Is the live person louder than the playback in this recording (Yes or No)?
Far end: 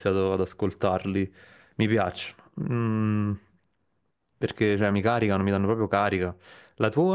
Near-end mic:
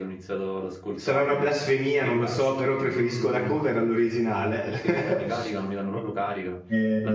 Yes